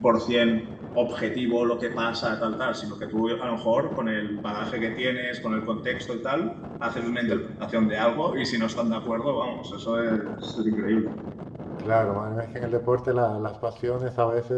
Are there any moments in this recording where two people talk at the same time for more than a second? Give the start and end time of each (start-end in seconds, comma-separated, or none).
none